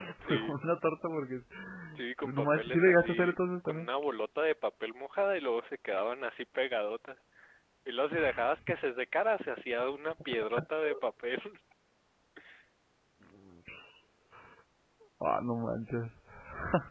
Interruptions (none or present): present